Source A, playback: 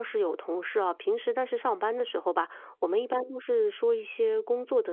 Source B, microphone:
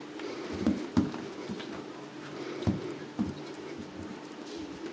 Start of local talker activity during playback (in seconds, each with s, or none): none